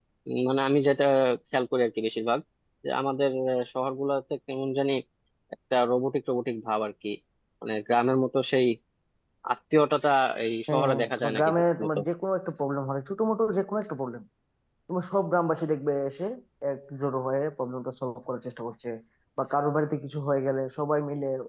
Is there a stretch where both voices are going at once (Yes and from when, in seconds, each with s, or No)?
Yes, from 10.7 s